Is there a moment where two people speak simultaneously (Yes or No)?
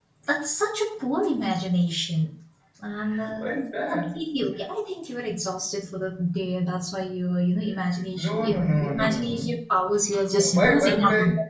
Yes